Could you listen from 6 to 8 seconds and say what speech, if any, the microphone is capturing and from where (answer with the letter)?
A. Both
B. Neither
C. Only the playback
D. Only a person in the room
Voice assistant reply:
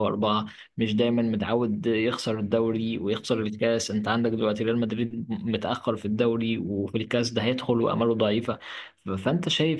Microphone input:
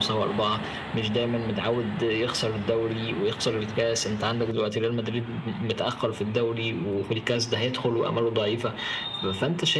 C